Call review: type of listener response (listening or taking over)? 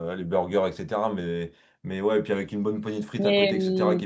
listening